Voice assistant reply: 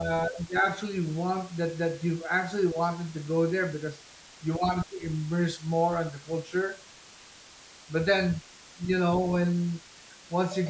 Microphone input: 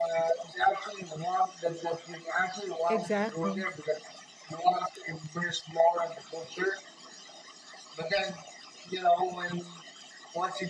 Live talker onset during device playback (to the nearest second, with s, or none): 3 s